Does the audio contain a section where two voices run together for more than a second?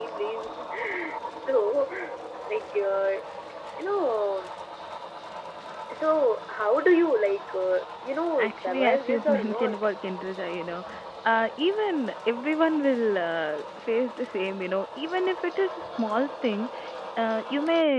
Yes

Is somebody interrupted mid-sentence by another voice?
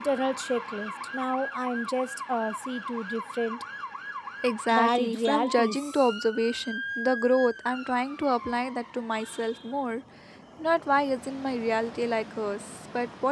Yes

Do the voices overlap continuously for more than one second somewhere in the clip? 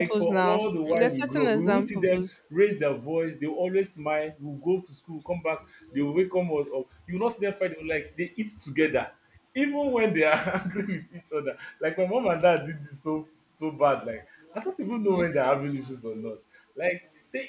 Yes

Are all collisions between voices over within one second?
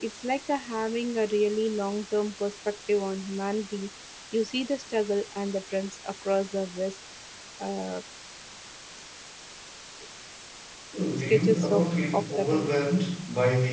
No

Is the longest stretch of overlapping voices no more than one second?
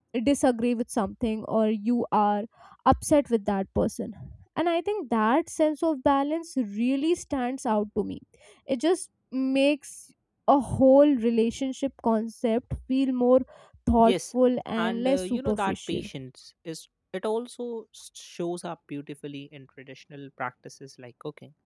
No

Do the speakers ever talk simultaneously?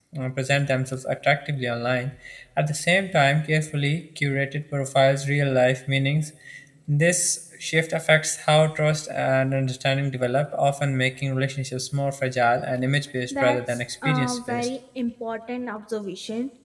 Yes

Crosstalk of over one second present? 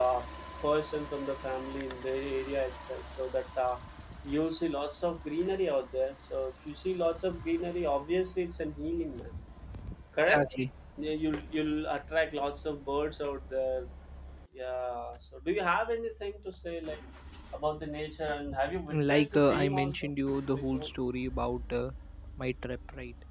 Yes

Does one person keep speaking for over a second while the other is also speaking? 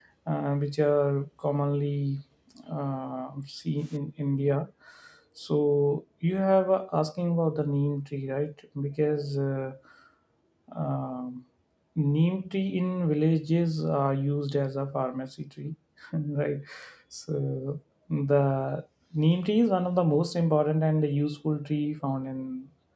No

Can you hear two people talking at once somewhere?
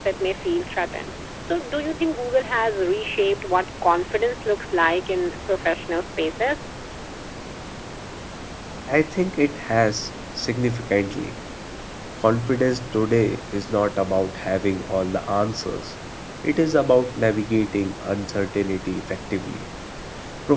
No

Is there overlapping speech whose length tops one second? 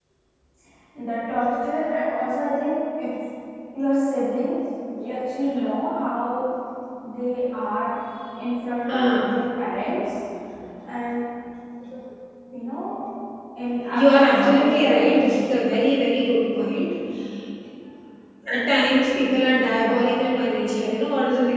Yes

